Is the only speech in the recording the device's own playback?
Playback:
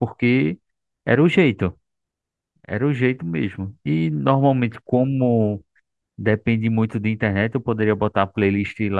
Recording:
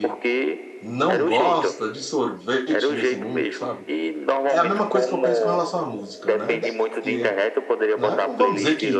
No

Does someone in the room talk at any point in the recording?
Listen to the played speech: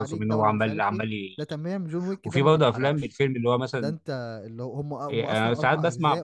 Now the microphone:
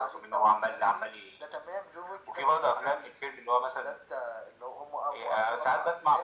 No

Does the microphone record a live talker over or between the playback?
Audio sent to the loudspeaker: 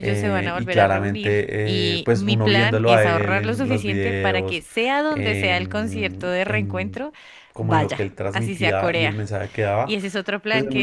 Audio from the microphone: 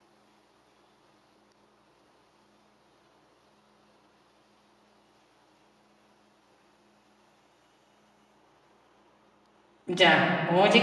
Yes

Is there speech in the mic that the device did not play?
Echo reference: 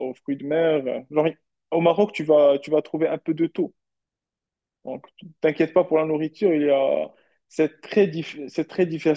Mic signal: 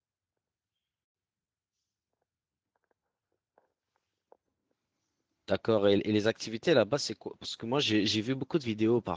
Yes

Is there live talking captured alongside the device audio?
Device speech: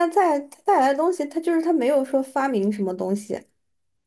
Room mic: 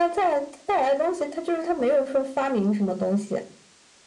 No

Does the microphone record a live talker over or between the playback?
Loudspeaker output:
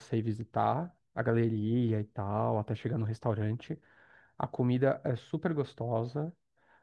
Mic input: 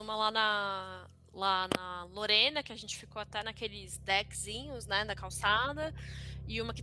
Yes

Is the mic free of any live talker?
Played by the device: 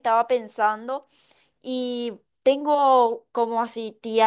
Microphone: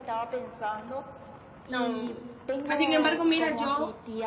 No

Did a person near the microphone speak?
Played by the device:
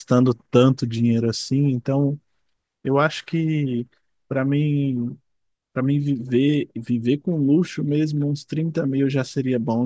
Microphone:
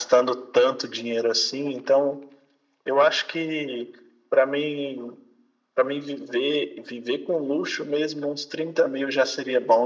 No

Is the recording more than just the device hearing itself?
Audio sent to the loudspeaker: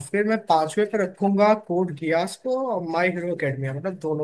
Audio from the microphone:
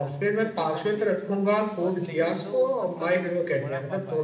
Yes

